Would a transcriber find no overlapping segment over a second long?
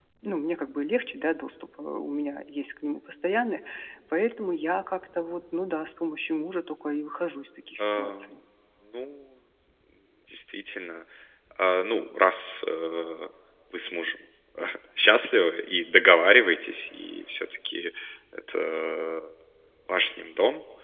Yes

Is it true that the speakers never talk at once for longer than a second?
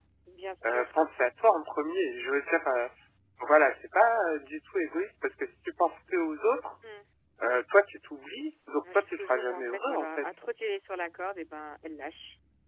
No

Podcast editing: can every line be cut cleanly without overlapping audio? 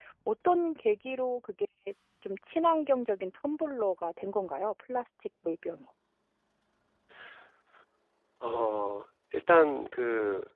Yes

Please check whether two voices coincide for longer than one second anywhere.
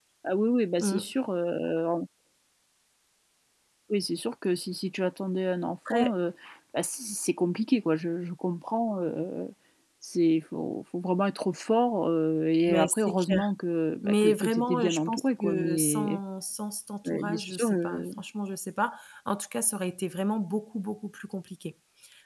Yes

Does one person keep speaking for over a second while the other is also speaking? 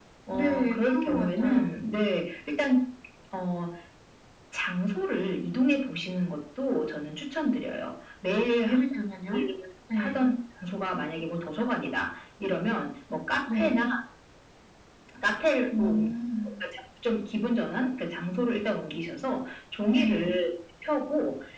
Yes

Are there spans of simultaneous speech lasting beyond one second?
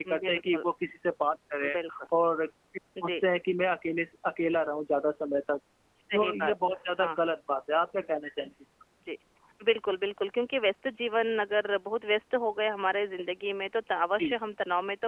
No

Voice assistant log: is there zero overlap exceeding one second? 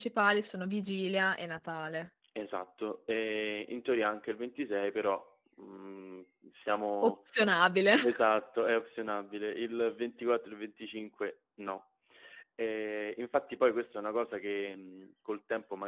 Yes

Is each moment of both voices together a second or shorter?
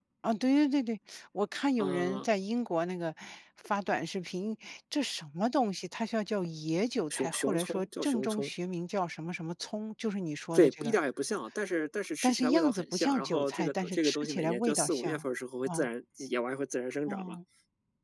No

